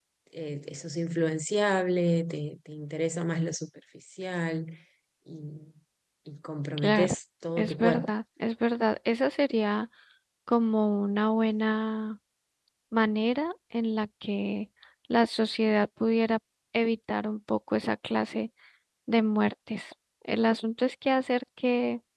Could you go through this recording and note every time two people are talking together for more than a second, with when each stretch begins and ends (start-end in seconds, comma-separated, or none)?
none